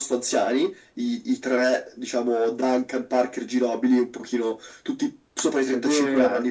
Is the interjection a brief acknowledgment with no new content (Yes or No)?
No